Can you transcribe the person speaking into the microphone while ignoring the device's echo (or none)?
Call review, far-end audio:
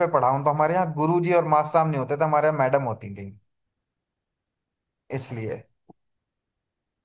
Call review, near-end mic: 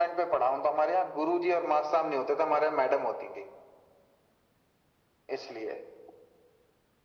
none